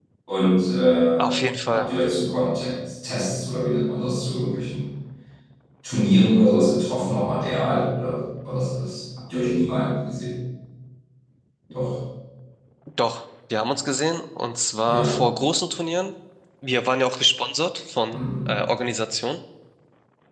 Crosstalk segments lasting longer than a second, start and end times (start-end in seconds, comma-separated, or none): none